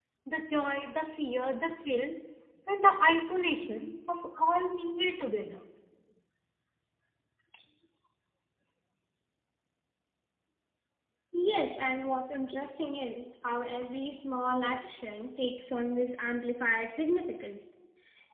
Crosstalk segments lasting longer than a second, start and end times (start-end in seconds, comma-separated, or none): none